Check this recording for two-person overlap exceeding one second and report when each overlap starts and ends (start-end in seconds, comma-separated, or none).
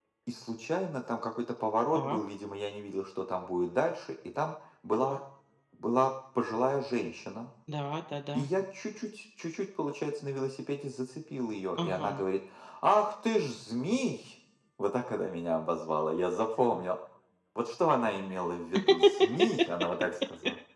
none